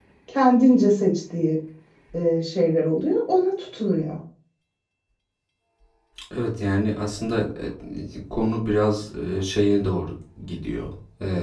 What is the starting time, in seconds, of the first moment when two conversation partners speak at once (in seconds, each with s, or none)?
none